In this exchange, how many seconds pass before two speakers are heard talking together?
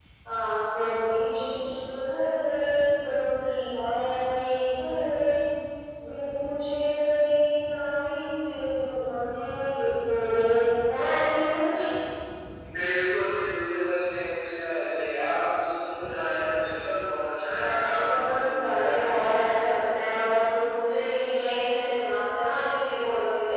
17.6 s

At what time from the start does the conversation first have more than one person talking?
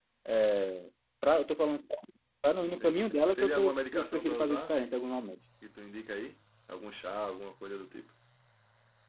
2.6 s

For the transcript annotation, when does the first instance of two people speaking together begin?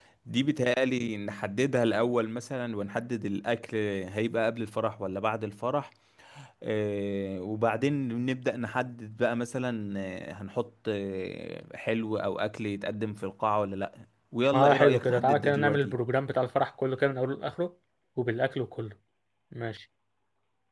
14.5 s

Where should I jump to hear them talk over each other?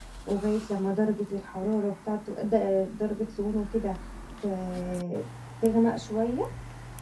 none

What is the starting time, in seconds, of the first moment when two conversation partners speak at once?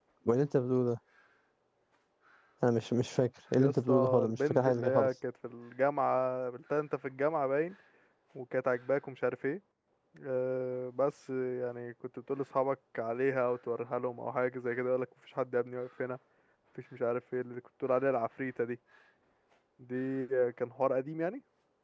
3.6 s

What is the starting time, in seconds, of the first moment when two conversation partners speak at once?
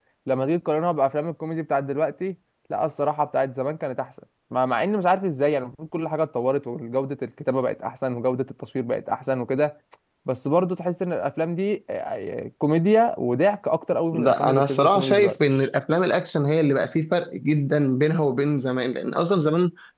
14.1 s

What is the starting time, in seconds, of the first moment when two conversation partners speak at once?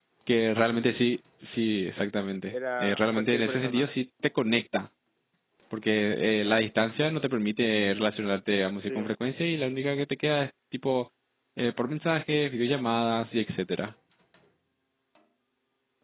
2.5 s

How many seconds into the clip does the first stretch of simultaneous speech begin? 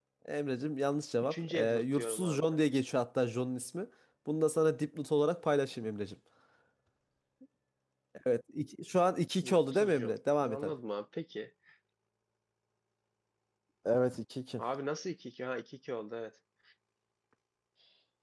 1.2 s

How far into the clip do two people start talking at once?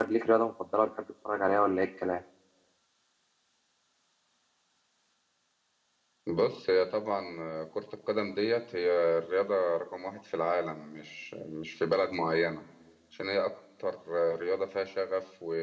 none

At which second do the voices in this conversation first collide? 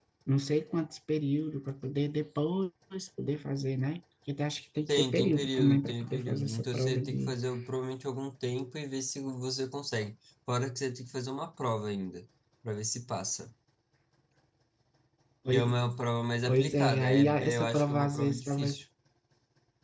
4.9 s

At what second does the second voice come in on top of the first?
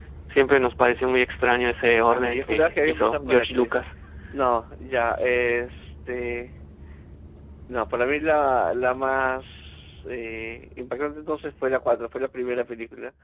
2.1 s

